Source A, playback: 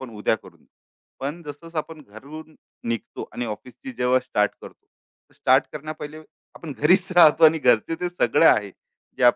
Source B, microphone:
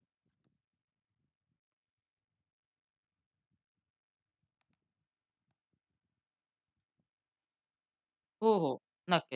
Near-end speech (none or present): present